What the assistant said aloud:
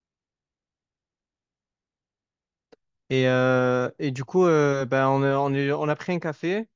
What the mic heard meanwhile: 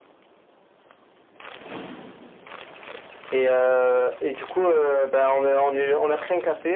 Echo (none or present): present